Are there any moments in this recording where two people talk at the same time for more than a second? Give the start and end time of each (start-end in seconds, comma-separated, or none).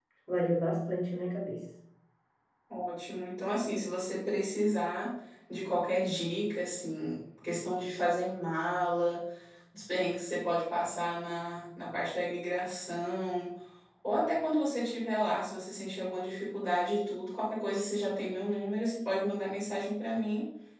none